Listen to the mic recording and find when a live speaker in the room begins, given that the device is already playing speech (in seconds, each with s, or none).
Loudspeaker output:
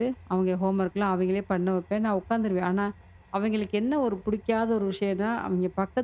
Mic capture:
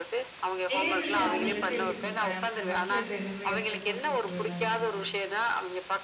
0.7 s